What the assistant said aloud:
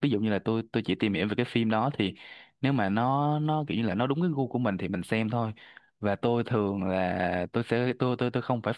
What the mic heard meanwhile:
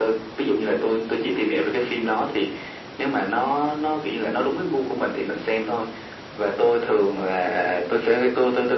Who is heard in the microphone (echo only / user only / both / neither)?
echo only